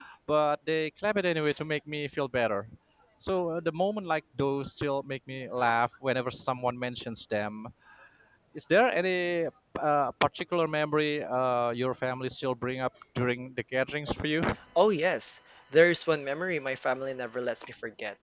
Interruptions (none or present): none